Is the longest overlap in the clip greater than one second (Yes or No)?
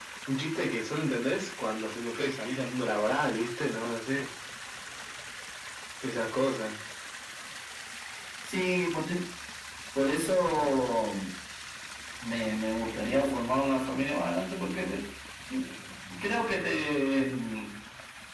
No